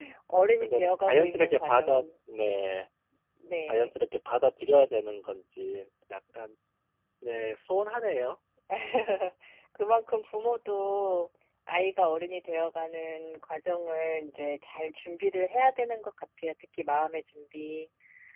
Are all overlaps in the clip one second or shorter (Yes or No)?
No